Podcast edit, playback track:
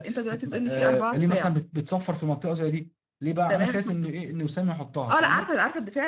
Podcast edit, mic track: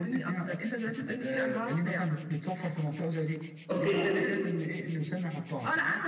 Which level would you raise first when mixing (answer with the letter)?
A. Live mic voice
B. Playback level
B